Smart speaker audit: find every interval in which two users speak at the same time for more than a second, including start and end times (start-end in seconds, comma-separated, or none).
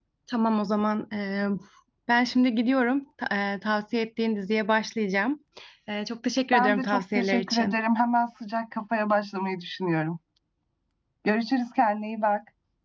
6.5-7.8